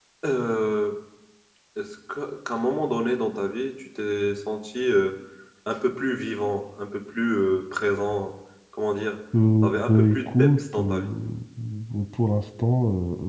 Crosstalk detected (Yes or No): Yes